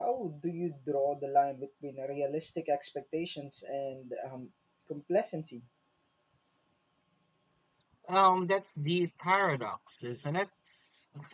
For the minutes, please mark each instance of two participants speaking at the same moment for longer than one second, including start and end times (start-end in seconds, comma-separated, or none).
none